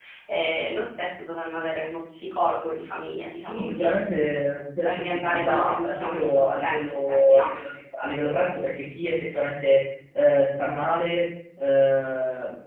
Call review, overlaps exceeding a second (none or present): present